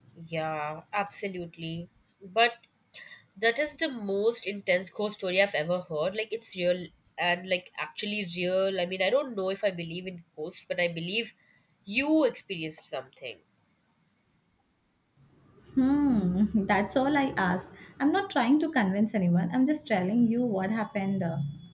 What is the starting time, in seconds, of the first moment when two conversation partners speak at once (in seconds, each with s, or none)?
none